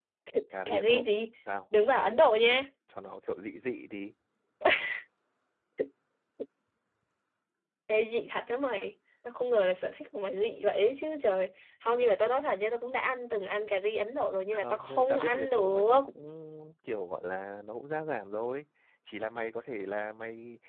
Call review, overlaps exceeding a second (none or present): present